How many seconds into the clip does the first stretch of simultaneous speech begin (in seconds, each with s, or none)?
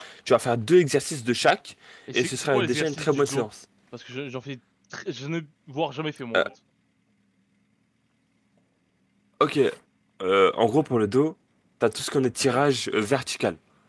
2.1 s